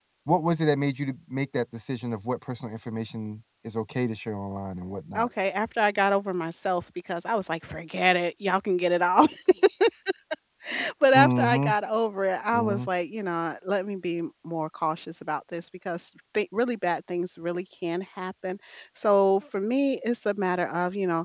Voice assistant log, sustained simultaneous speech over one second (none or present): none